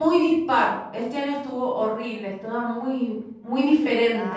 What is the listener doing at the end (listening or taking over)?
taking over